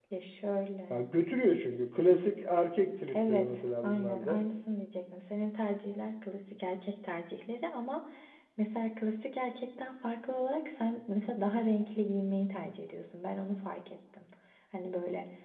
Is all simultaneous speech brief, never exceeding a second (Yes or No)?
No